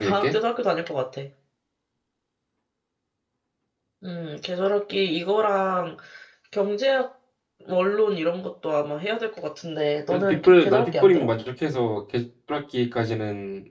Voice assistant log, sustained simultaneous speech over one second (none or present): present